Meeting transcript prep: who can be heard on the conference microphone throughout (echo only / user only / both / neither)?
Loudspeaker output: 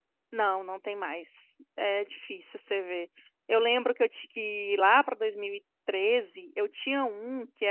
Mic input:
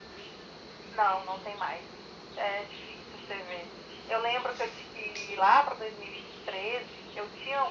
echo only